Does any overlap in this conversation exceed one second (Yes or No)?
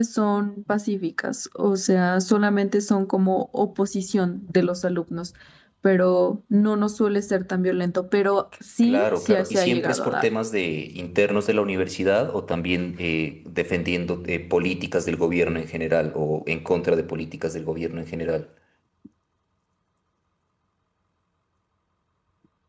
Yes